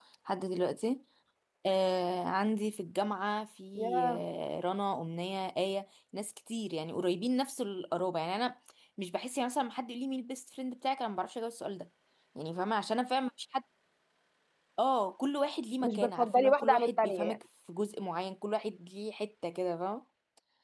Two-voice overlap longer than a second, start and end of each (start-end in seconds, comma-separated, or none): 15.8-17.4